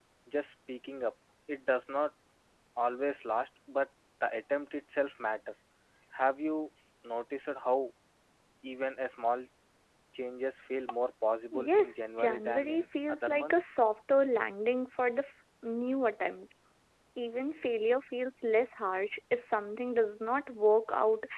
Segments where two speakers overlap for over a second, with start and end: 11.5-13.6

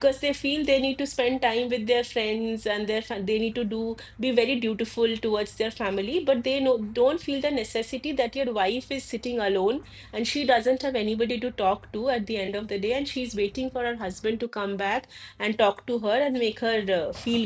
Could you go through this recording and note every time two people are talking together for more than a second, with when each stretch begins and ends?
none

